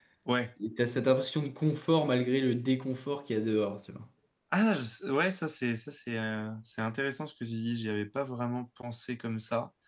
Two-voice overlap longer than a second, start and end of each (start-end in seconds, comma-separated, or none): none